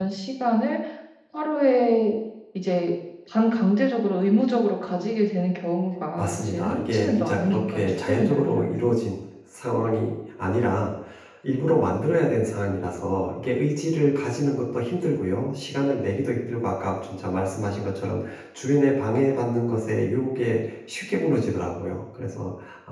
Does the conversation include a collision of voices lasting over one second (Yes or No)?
Yes